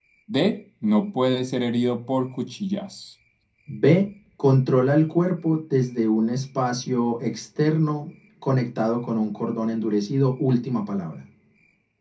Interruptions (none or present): none